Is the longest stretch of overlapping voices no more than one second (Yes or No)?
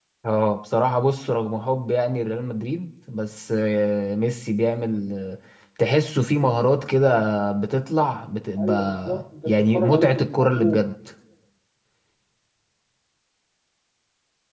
No